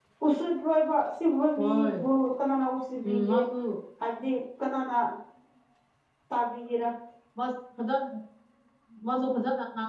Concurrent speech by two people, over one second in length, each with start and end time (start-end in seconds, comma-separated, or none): none